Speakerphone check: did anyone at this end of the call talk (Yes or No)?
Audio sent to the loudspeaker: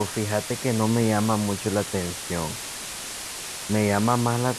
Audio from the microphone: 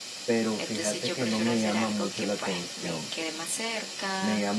Yes